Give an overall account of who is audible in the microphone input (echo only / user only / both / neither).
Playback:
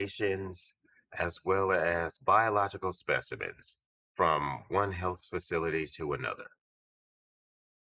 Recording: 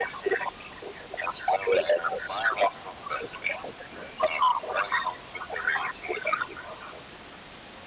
echo only